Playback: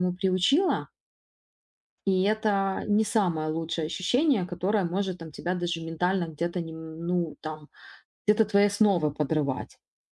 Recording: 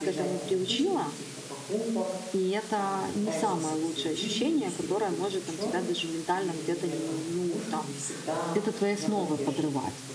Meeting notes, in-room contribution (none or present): present